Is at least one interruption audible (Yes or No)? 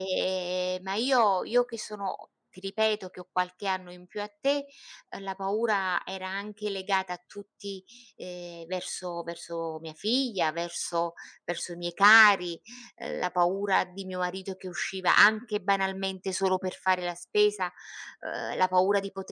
No